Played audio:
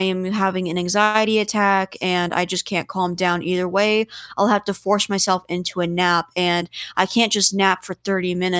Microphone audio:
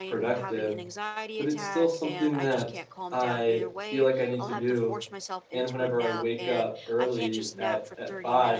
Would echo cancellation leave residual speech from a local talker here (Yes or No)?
Yes